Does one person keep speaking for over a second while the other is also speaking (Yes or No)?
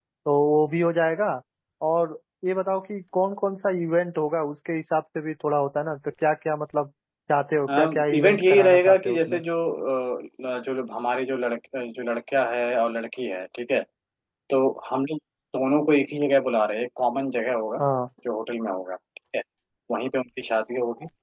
Yes